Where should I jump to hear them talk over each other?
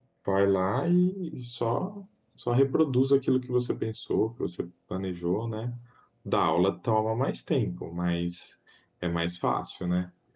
none

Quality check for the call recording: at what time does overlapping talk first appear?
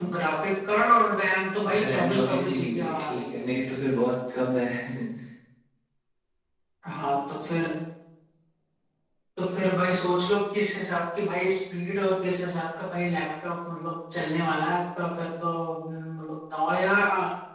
1.7 s

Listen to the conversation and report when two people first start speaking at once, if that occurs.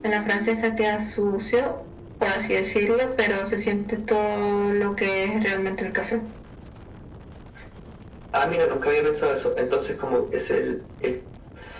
none

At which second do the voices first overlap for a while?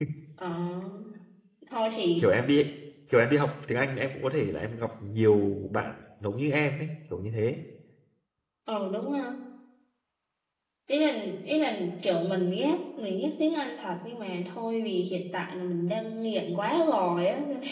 none

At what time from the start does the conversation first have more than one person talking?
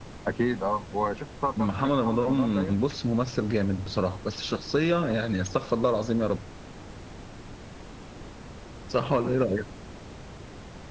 1.5 s

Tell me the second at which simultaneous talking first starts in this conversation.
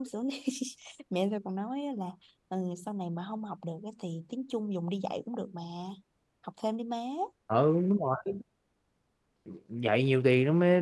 none

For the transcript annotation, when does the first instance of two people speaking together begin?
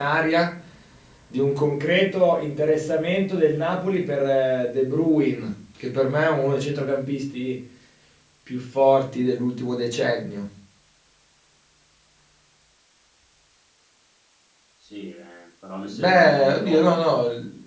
15.9 s

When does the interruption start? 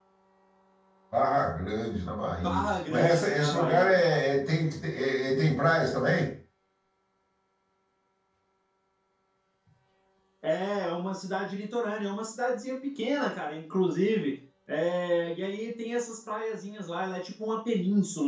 2.4 s

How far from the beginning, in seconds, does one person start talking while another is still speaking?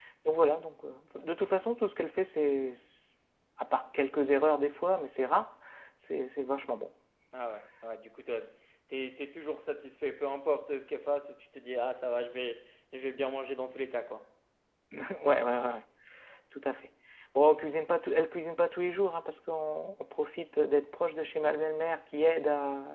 none

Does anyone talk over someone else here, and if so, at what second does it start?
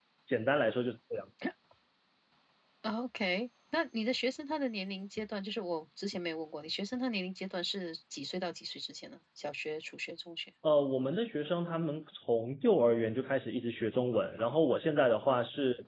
none

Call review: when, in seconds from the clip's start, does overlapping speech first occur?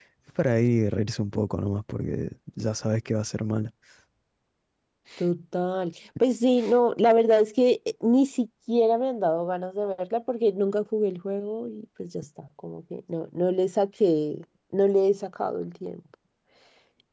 none

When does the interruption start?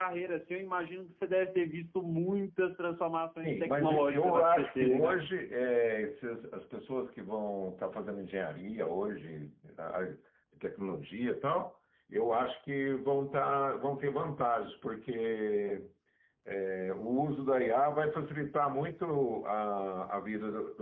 3.4 s

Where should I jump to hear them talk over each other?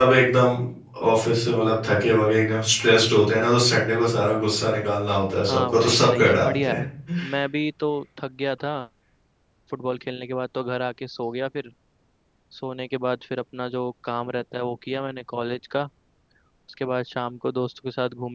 5.4 s

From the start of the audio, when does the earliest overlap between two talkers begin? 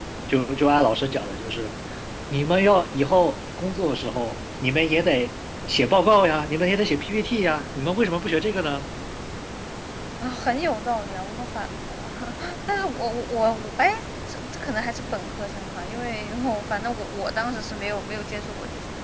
none

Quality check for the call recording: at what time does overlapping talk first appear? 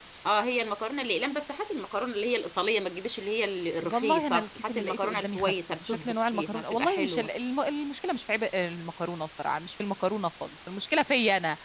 3.8 s

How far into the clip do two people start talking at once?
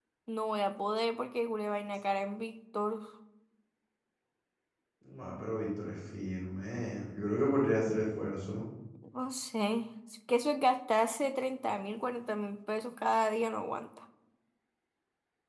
none

